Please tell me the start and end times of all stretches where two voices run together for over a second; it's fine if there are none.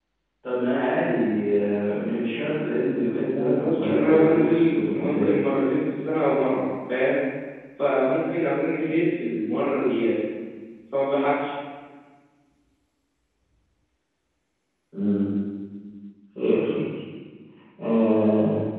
3.3-5.3

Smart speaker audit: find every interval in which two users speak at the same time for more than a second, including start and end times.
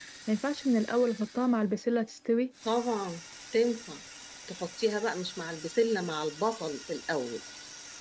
none

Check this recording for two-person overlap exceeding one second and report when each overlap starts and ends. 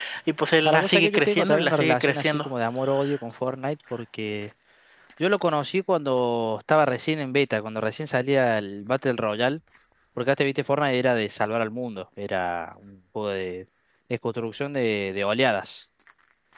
0.7-2.5

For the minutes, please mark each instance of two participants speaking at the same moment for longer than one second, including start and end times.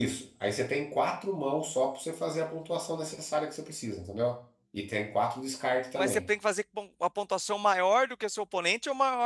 none

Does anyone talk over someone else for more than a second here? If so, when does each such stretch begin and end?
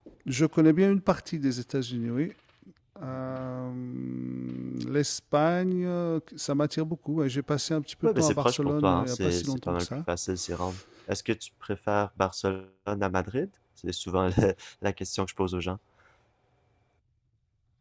8.0-9.9

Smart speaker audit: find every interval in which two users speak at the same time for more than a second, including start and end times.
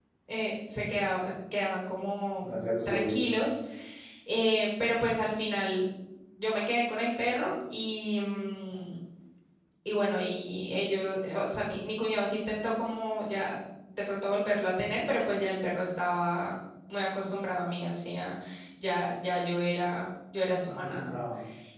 none

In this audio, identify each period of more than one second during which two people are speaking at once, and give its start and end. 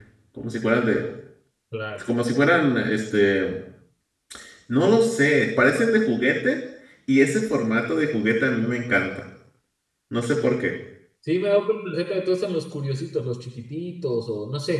none

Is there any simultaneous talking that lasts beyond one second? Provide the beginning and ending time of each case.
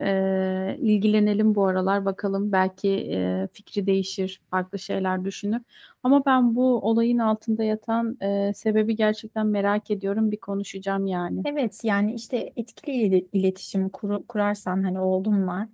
none

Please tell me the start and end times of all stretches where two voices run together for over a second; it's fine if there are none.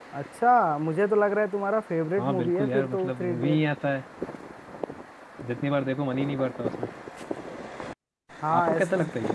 2.2-3.6

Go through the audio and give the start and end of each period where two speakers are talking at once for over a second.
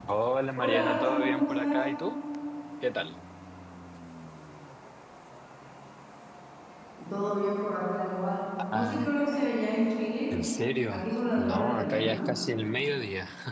0.6-1.9, 10.9-12.3

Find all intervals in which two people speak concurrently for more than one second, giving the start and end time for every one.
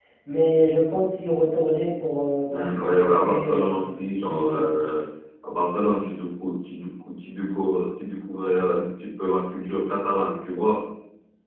2.5-4.8

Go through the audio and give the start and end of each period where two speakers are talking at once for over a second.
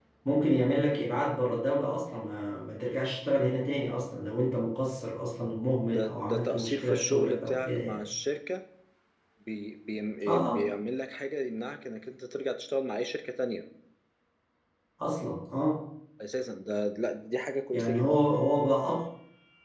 5.9-8.0

